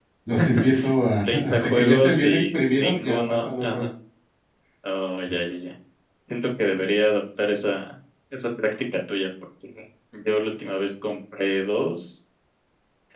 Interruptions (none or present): present